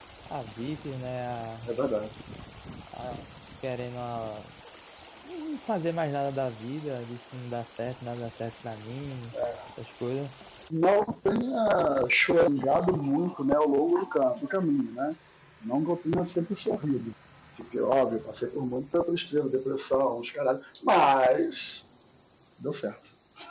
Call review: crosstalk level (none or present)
none